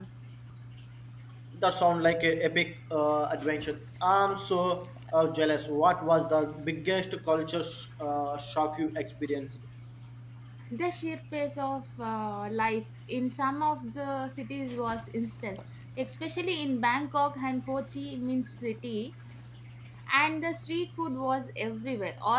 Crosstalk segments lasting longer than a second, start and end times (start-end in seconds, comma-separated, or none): none